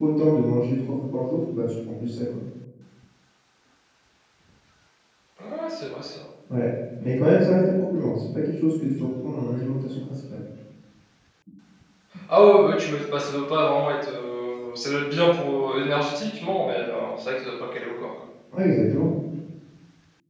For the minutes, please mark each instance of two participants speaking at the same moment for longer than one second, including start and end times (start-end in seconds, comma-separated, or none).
none